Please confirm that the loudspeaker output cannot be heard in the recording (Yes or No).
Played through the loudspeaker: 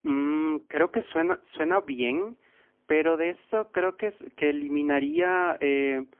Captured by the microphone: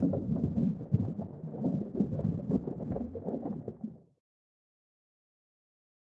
Yes